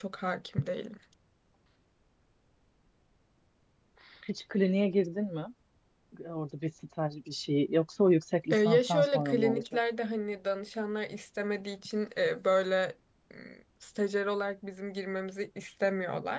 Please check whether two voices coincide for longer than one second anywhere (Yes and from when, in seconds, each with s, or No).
Yes, from 8.5 s